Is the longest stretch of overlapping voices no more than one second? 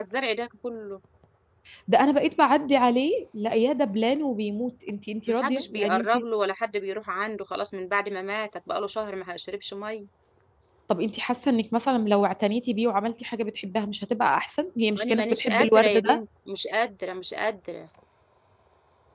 No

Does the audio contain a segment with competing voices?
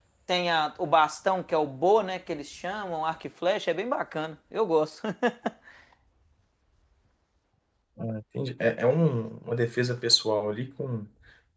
No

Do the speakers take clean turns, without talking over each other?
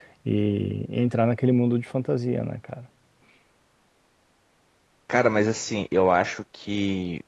Yes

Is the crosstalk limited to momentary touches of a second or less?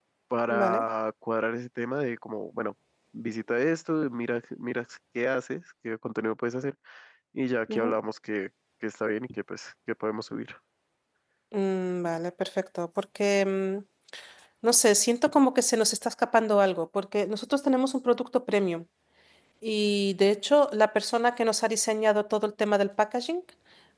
Yes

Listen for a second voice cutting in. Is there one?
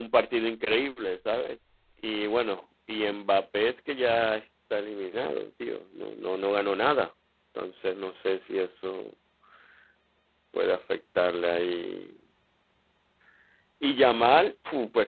No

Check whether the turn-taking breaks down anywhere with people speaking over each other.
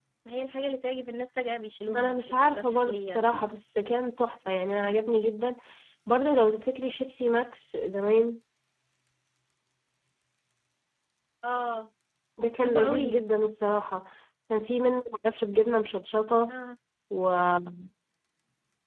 Yes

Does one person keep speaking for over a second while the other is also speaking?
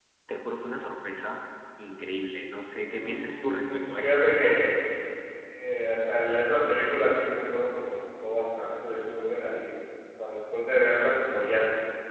Yes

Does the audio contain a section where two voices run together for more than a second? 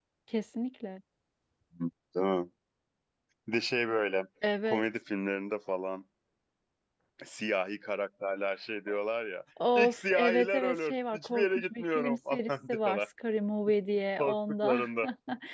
Yes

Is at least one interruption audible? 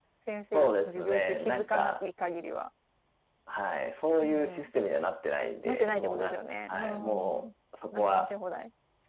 Yes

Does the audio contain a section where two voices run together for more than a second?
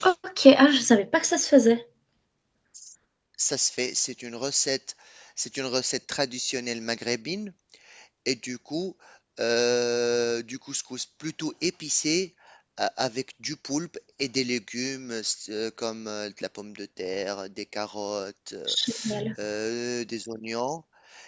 No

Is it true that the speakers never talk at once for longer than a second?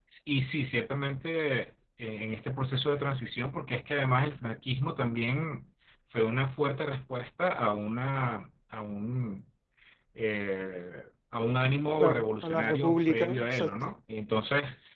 No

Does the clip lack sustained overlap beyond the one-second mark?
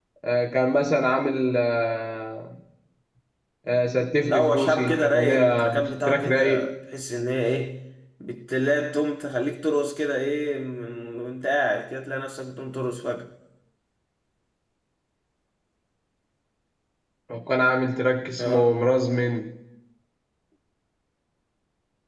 No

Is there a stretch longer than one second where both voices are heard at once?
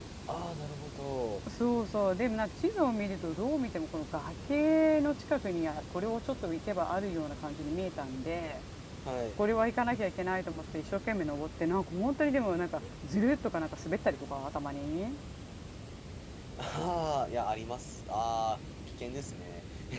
No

